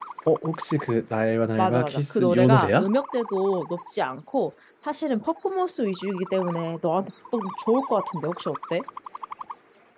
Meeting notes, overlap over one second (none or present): present